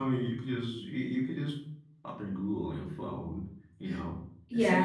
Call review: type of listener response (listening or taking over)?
taking over